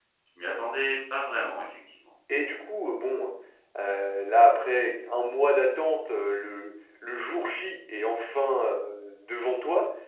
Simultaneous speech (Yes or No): No